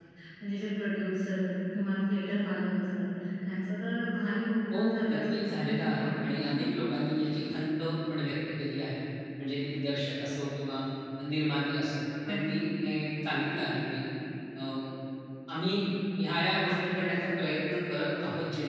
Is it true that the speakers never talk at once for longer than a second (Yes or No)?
No